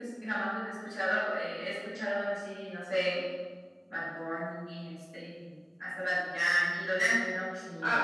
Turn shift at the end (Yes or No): Yes